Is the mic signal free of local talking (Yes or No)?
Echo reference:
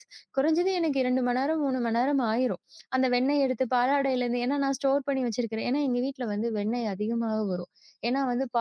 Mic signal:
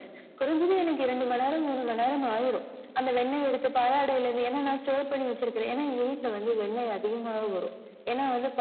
Yes